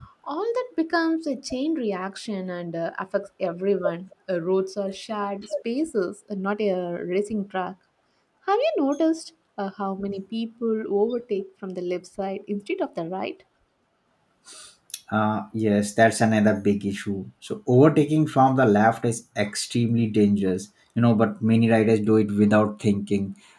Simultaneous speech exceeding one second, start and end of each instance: none

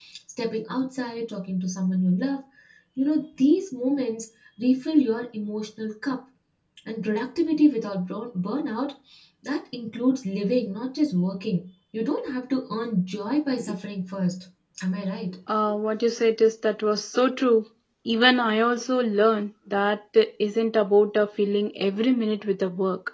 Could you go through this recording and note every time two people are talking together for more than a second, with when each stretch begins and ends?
none

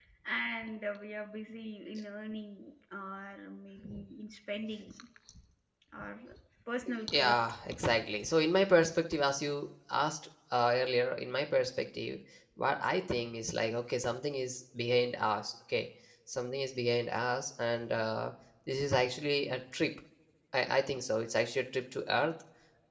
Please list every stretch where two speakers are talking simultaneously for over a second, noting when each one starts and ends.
none

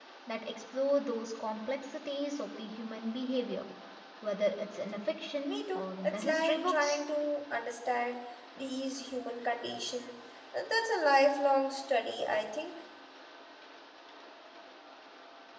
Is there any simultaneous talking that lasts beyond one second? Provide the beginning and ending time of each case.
5.4-7.0

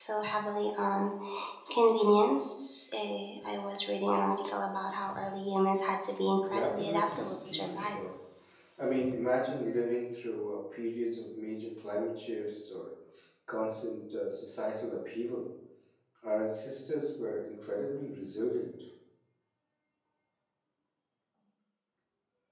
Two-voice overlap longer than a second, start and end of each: 6.5-8.0

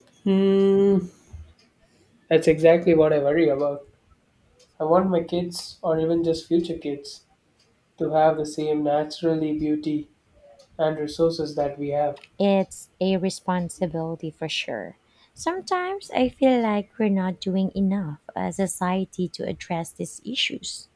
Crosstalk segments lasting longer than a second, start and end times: none

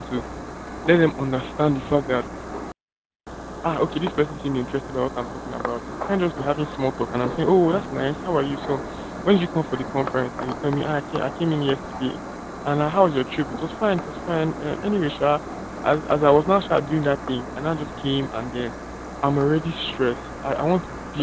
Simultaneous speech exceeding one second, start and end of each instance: none

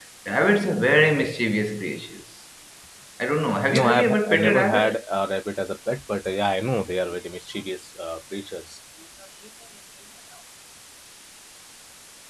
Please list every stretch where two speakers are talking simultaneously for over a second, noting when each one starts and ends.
3.8-5.0

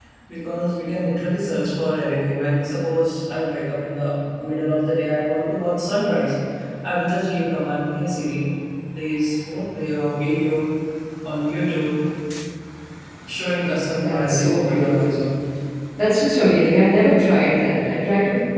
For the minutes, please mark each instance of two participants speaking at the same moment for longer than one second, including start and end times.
14.0-15.3

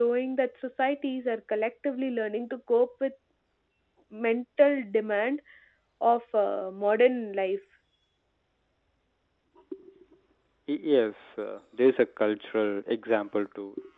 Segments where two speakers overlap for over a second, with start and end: none

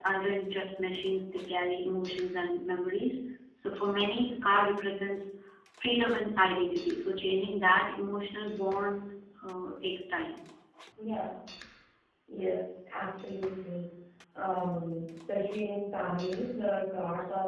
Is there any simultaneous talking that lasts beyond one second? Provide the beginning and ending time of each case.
none

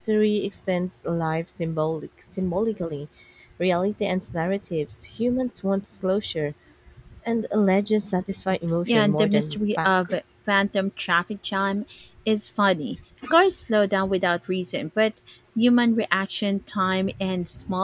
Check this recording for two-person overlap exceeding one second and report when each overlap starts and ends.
8.9-10.2

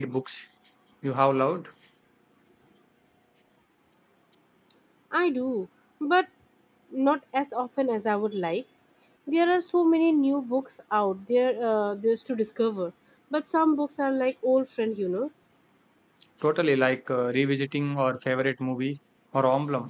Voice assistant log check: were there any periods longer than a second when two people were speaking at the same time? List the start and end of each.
none

